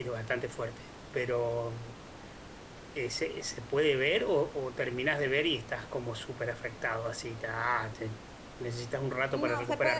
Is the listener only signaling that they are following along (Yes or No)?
No